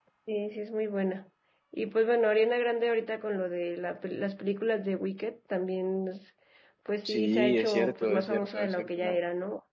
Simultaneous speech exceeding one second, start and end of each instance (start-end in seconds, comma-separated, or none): 7.0-9.2